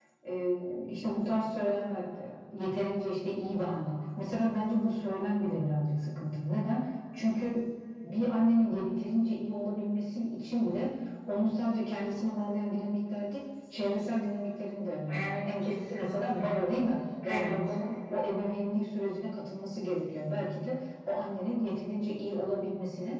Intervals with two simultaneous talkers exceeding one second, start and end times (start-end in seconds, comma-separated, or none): 15.1-16.6